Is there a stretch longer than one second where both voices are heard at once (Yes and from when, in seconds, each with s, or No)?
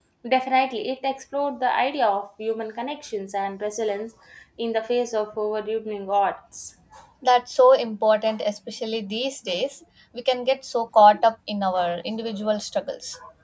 No